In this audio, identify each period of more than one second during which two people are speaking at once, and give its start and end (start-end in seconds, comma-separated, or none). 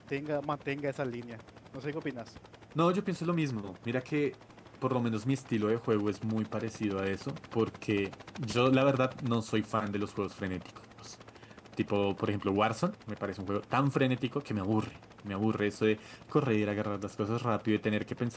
none